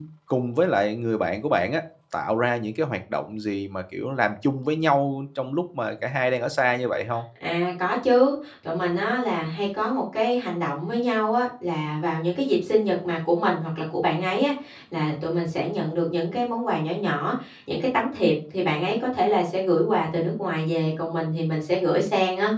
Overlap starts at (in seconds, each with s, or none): none